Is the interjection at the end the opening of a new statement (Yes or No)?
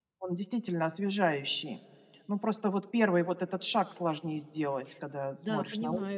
Yes